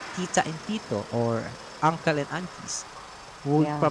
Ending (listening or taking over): listening